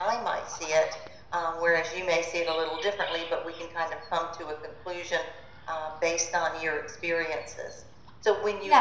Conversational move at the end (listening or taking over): listening